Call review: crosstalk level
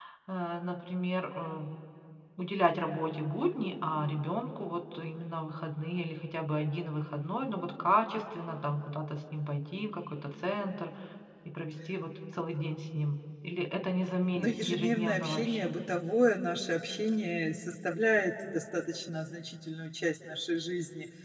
present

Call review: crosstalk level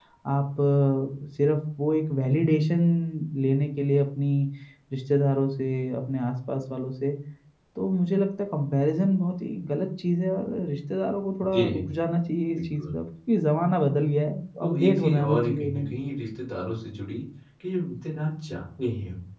present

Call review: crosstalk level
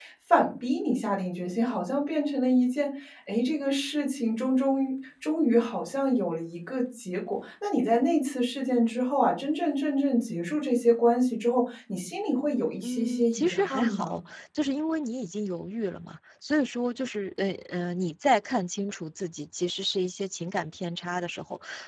present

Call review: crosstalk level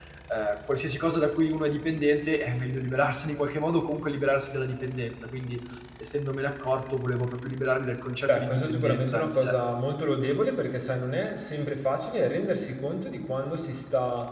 present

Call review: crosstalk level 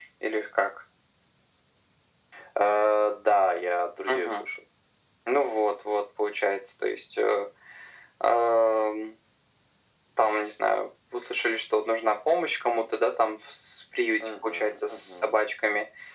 present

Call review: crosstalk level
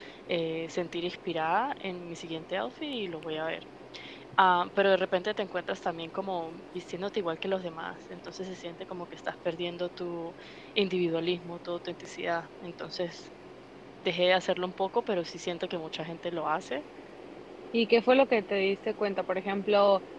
none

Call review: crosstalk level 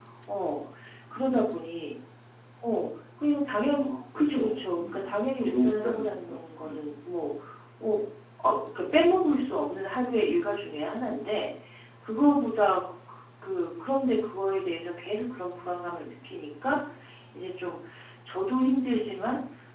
present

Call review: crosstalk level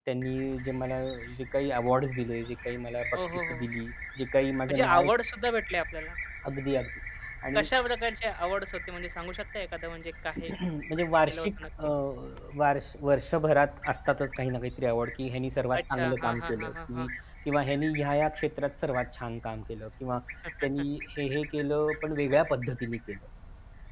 present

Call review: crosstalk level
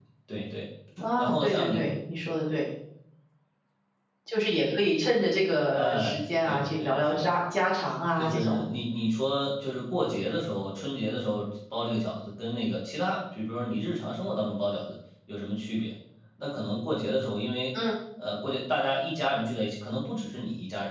present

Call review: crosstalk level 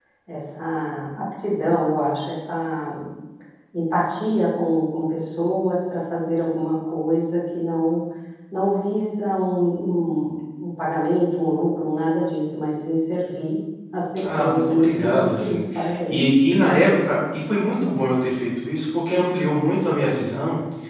present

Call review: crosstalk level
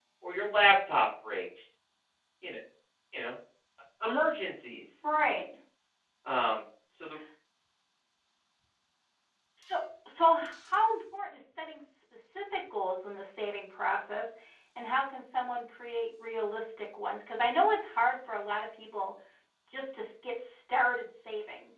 none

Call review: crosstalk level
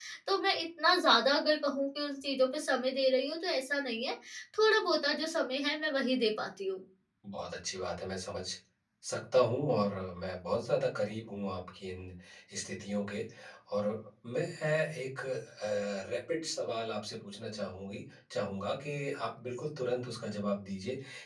none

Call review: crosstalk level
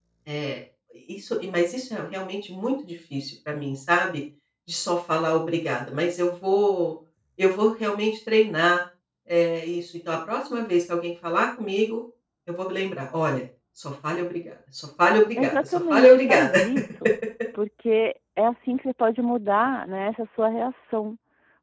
present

